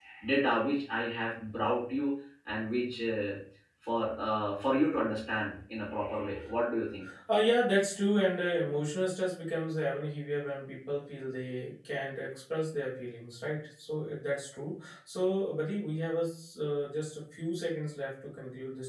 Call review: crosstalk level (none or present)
none